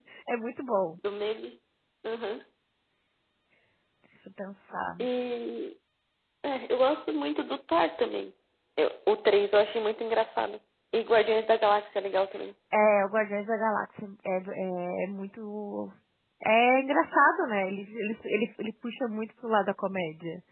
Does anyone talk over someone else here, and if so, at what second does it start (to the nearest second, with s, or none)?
none